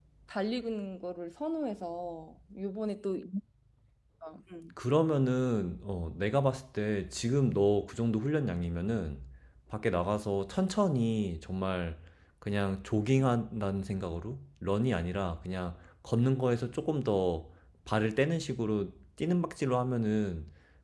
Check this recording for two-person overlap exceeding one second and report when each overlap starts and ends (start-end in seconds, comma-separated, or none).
none